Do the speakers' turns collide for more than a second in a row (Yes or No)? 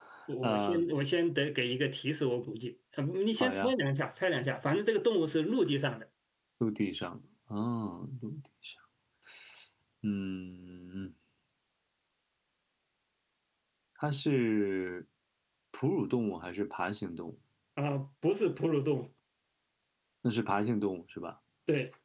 No